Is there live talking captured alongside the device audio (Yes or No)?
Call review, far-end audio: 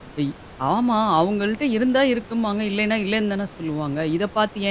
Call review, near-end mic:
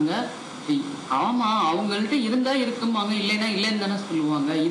No